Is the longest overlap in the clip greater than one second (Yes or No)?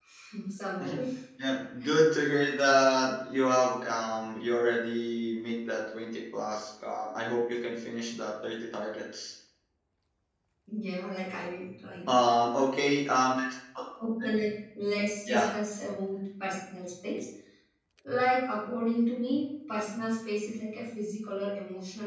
No